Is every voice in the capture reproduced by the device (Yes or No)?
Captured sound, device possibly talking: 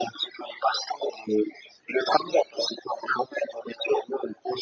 Yes